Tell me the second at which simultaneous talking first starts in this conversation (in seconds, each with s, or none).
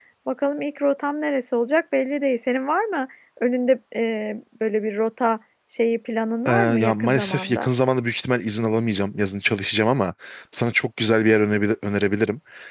6.5 s